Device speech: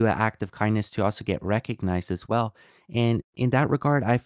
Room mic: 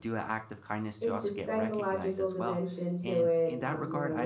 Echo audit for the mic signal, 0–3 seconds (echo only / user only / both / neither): both